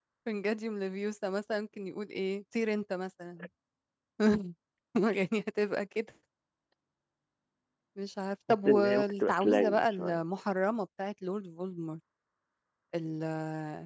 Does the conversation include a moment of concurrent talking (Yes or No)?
Yes